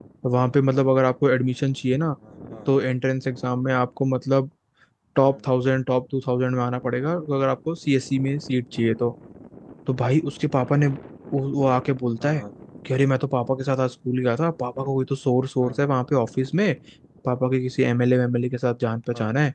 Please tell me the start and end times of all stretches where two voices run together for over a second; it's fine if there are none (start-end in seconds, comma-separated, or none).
none